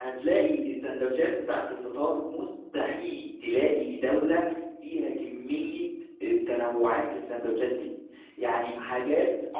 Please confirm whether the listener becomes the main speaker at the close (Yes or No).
No